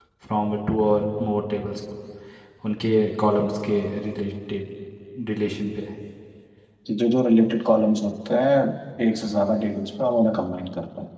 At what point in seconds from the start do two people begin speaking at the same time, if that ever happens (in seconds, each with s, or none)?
none